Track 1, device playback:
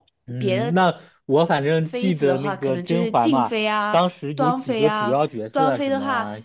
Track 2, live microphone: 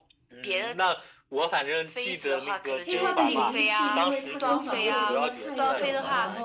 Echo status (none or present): present